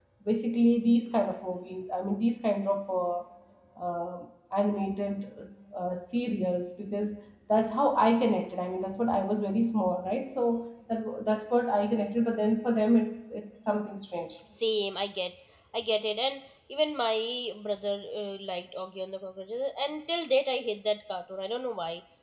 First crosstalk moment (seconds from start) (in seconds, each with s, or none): none